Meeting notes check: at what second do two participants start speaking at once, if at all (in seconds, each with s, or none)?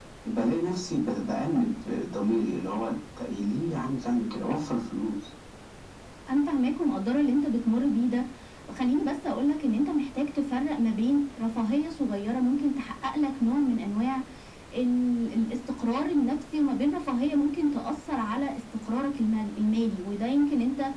none